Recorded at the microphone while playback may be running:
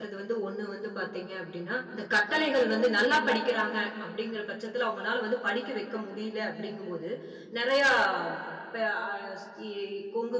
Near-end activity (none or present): present